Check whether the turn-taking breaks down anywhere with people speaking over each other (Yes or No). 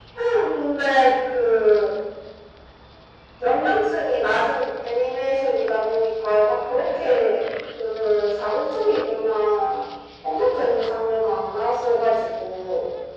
No